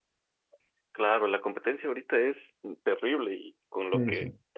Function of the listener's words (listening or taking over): listening